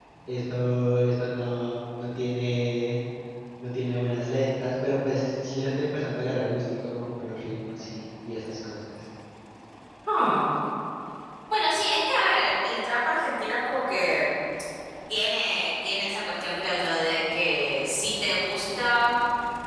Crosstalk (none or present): none